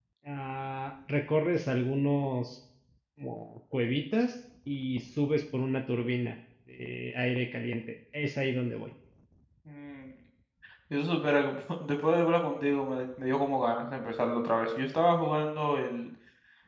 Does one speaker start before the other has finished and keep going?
No

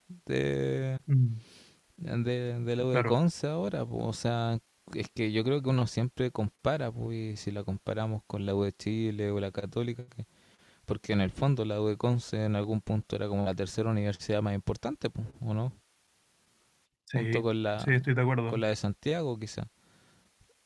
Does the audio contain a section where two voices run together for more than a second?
No

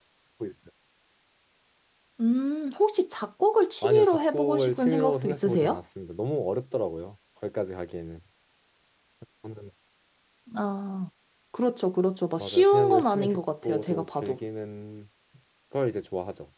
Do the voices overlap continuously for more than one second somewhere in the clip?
Yes, from 3.8 s

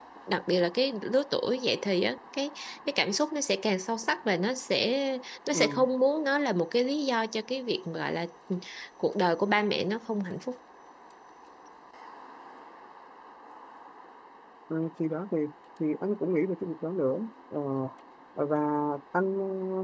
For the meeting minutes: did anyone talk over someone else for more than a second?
No

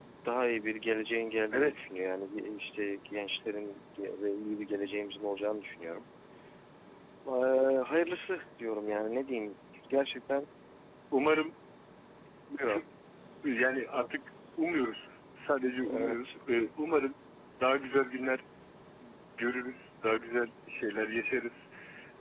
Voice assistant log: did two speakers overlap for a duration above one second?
No

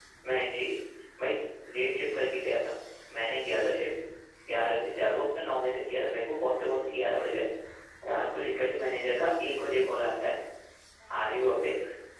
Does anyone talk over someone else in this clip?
No

